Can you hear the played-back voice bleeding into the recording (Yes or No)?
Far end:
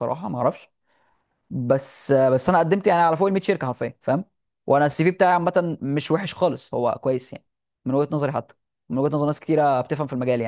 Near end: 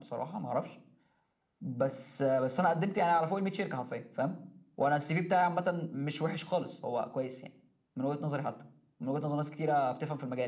Yes